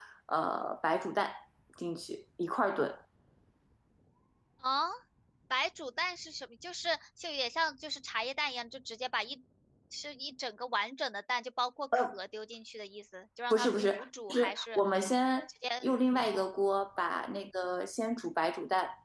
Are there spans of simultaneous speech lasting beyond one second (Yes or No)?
Yes